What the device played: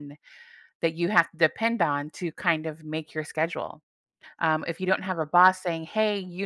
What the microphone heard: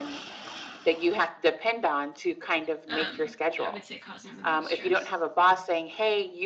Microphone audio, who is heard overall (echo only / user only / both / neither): both